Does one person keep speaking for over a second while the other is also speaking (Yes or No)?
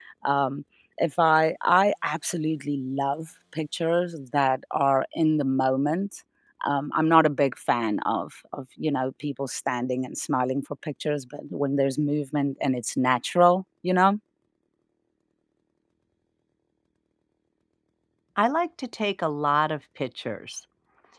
No